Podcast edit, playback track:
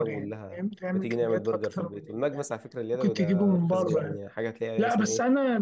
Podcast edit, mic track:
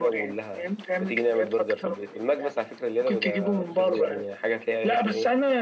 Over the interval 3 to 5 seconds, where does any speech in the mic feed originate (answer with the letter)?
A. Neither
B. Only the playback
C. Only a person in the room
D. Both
B